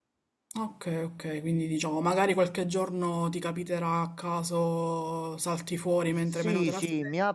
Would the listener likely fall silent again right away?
No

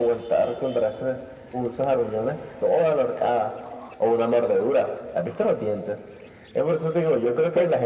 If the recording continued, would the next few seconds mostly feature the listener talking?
Yes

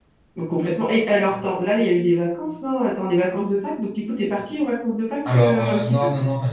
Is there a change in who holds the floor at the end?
Yes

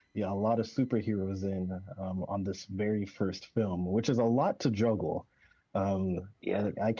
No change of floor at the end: Yes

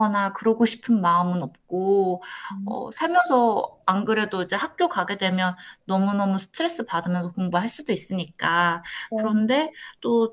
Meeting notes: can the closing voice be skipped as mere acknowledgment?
Yes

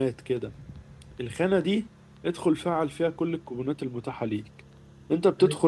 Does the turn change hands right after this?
No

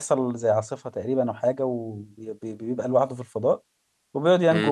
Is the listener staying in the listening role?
Yes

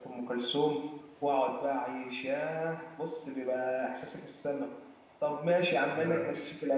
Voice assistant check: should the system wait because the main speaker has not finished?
Yes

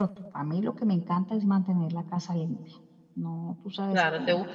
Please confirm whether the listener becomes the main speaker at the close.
Yes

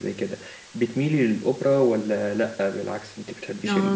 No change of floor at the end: No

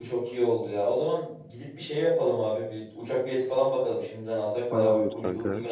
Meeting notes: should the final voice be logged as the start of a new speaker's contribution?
Yes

